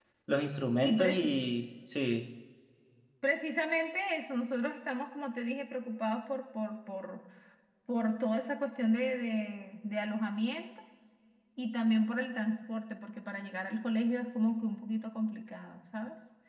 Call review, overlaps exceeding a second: none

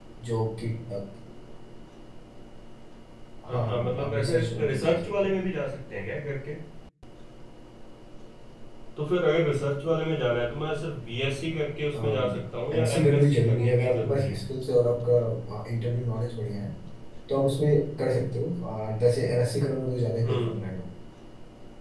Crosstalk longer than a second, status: present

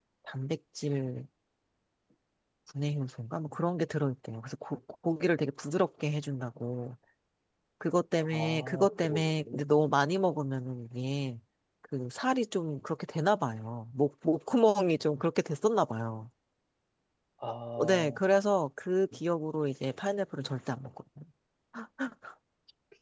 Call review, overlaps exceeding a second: present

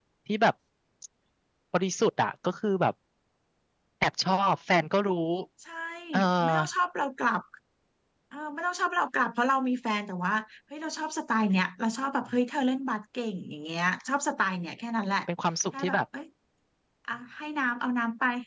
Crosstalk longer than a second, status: none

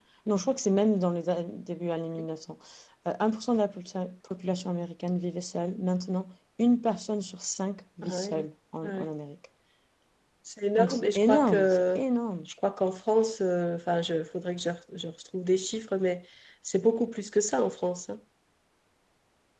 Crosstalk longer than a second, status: present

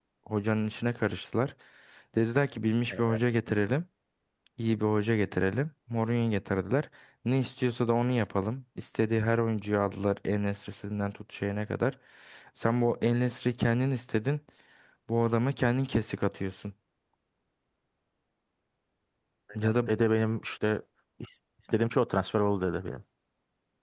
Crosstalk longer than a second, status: none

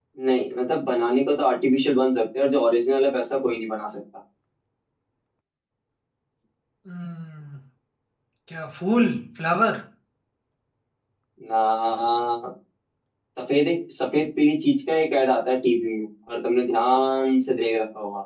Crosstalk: none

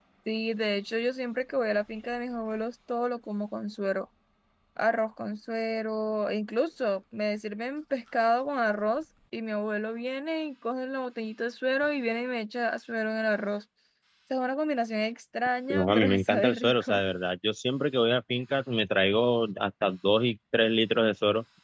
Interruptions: present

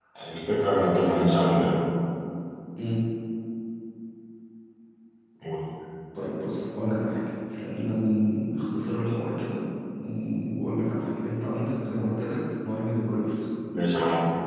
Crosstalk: none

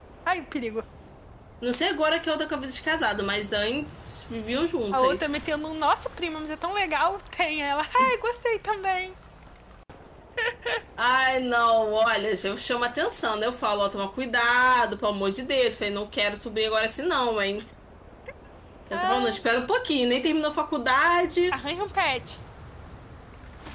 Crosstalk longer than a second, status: none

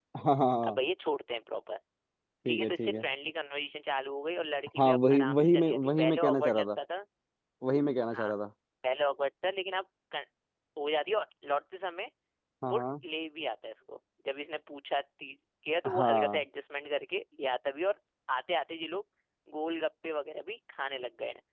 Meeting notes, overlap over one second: present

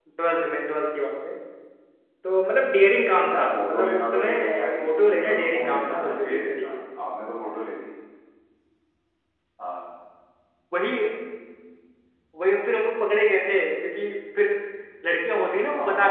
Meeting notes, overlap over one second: present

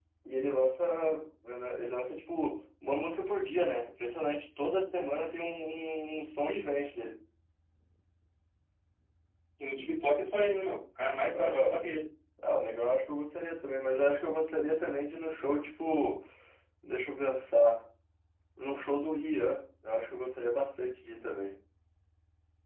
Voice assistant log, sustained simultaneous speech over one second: none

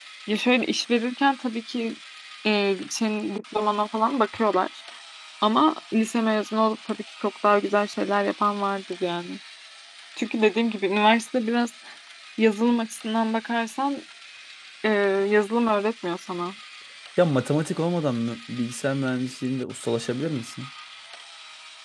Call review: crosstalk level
none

